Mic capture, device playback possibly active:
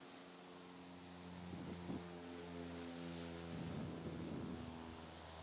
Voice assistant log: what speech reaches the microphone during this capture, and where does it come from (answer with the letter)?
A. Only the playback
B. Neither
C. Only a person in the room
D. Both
B